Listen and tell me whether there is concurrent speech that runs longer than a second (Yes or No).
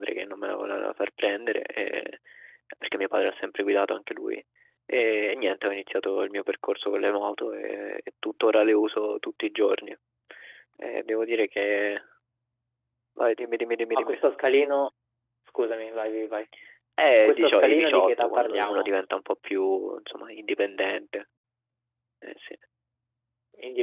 Yes